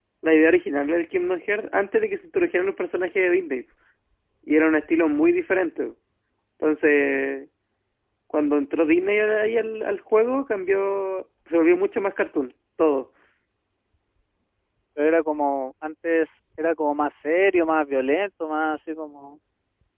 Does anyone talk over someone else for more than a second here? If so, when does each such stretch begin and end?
none

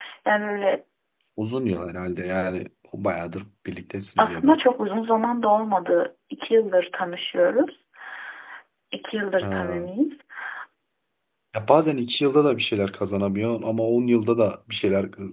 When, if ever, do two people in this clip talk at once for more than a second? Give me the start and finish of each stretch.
none

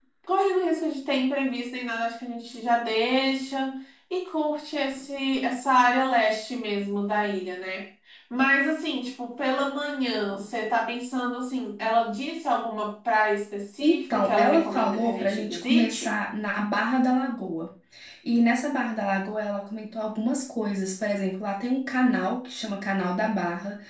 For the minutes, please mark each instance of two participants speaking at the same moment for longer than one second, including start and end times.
13.8-16.2

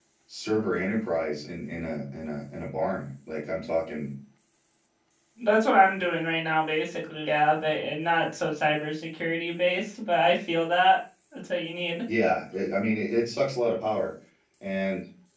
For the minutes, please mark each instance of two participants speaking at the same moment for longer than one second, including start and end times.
none

